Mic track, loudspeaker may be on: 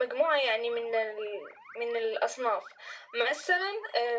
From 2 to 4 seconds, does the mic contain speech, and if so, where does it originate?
echo only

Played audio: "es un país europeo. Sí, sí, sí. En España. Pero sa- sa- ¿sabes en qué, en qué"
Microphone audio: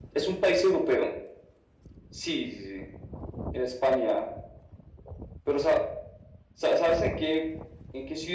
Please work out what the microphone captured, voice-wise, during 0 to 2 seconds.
echo only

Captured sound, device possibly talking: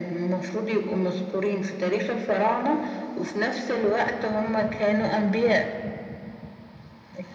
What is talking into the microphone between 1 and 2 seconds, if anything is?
echo only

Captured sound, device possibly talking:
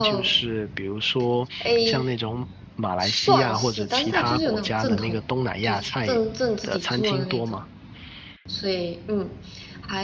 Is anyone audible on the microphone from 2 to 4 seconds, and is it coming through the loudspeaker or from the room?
both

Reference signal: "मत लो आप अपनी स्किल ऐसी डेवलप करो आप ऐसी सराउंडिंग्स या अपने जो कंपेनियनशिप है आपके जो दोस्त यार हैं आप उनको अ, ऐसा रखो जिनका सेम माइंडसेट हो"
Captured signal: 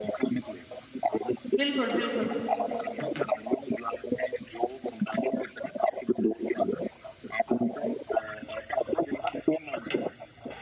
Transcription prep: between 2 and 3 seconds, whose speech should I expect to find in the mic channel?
both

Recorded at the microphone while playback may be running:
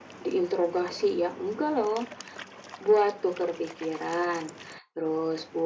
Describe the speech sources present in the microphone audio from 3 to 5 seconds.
echo only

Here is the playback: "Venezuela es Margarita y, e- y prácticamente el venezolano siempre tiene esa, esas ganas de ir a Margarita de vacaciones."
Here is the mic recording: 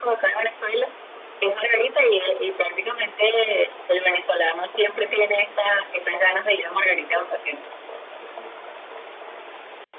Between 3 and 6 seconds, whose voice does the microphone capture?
echo only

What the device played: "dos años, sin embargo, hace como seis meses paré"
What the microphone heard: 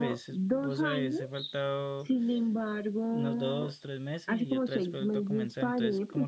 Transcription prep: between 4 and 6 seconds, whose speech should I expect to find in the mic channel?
both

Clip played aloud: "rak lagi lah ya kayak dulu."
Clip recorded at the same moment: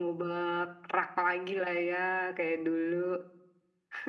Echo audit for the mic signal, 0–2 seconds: echo only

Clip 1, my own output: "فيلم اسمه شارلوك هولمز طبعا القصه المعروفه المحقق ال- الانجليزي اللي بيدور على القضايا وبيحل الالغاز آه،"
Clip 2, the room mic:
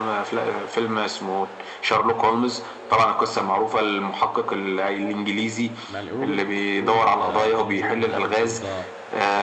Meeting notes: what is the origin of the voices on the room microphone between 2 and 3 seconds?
echo only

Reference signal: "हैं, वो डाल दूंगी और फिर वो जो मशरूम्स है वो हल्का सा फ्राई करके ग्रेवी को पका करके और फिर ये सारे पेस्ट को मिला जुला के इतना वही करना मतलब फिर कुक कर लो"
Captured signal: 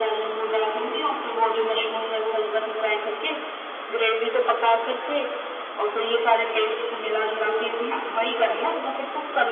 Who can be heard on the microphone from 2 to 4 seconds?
echo only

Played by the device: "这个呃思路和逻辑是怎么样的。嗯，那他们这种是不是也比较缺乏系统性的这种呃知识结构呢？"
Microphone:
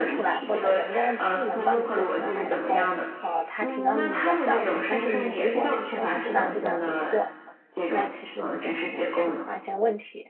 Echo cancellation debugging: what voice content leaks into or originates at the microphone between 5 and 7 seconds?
both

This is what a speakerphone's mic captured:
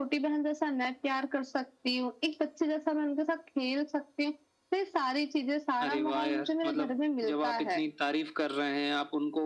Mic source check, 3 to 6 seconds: echo only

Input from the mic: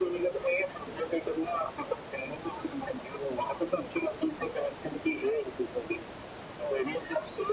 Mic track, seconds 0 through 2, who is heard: echo only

